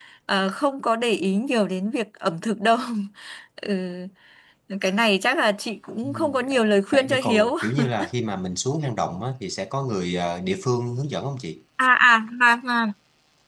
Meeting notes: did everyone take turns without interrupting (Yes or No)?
No